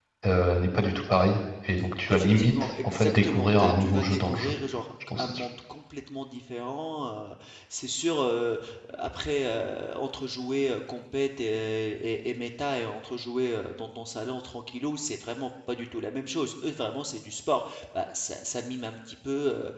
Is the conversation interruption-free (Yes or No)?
No